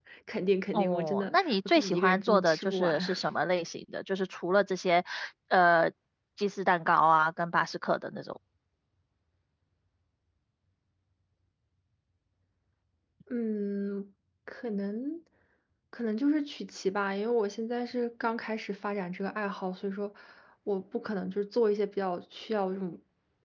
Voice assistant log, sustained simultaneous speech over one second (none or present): present